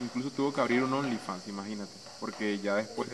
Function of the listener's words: listening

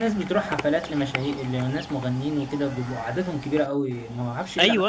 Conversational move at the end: taking over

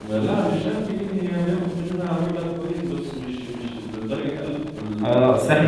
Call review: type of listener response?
taking over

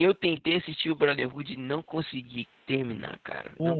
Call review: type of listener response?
listening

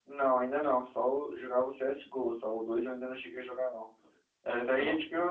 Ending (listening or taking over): listening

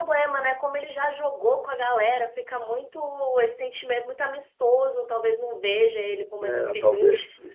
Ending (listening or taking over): taking over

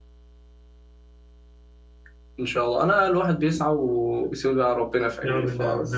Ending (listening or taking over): taking over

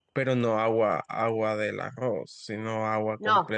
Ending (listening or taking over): taking over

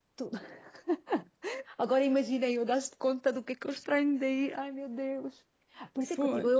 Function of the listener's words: listening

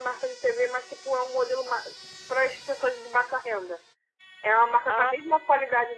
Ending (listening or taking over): listening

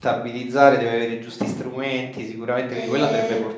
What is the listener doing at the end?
taking over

